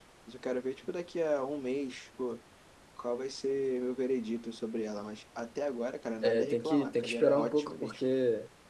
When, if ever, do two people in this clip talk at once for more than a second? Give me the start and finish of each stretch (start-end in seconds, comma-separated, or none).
6.2-8.0